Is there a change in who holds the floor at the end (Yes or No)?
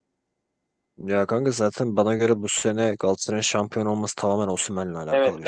Yes